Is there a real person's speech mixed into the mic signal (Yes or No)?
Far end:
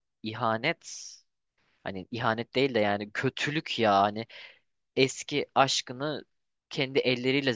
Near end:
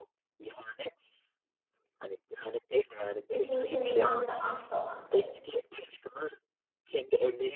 Yes